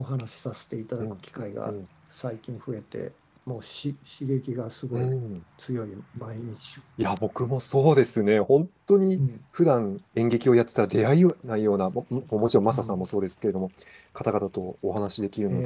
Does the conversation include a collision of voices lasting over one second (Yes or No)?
No